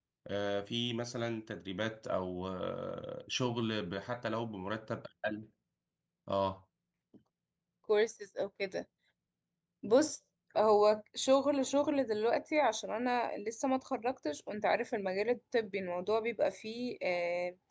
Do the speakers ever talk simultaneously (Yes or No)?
No